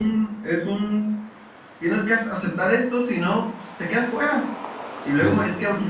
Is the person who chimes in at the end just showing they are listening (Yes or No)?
Yes